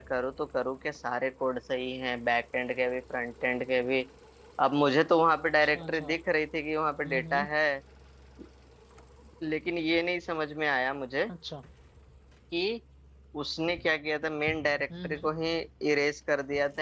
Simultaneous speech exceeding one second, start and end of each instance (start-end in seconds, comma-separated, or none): none